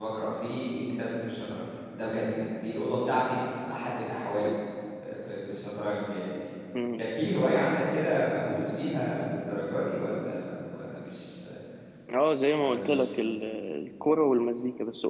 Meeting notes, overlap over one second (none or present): none